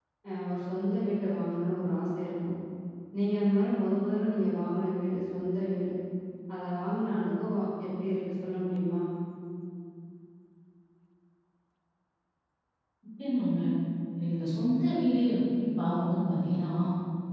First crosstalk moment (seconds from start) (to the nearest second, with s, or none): none